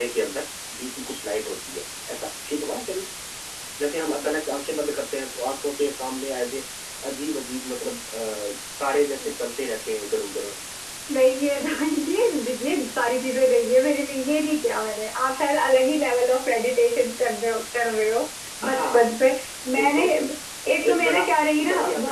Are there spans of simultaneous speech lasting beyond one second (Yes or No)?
No